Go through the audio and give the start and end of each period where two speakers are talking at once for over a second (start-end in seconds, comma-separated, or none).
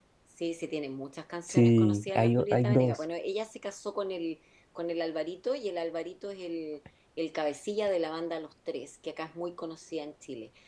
1.5-3.0